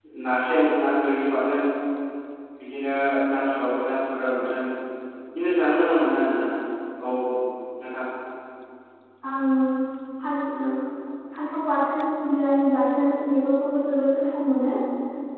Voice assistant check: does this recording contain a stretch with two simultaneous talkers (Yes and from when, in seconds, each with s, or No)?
No